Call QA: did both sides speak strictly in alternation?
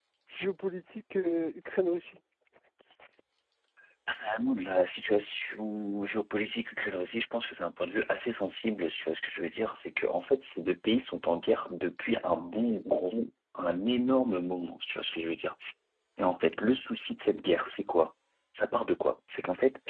Yes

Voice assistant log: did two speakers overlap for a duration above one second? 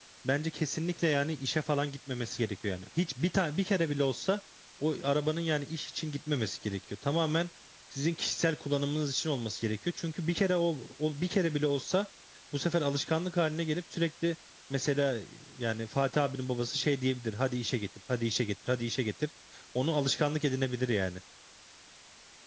No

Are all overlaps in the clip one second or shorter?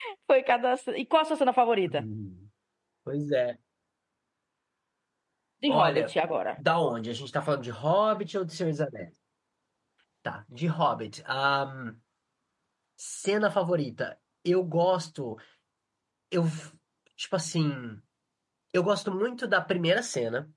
Yes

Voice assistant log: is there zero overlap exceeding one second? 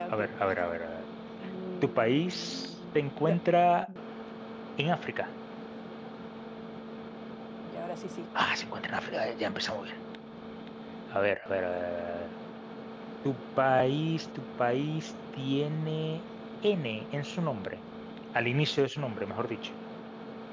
No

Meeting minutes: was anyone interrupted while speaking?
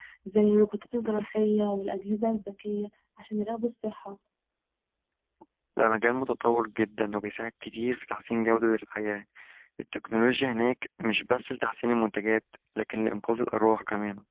No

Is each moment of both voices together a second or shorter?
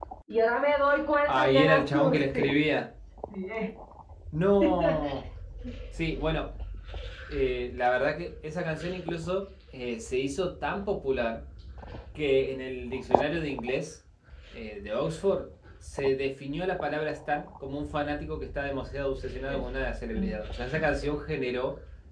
No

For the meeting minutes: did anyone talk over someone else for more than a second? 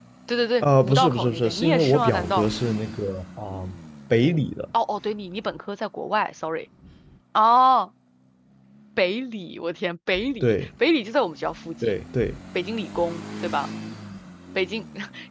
Yes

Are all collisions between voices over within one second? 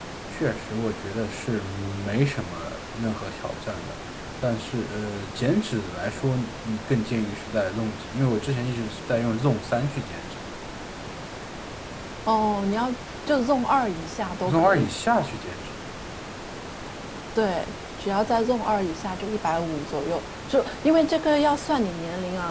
Yes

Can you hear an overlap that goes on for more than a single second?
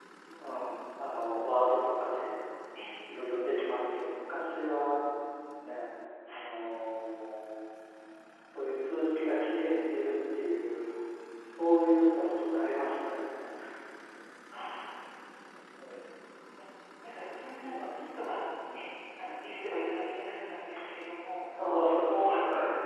No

